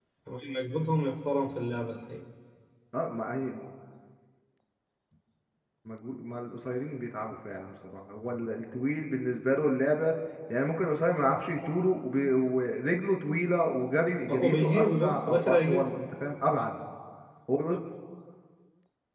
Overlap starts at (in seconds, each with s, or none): 14.3 s